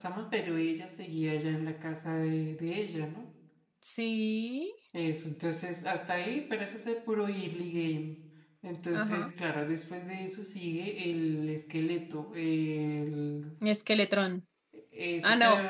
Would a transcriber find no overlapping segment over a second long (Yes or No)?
Yes